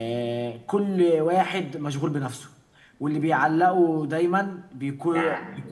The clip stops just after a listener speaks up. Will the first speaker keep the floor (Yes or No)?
Yes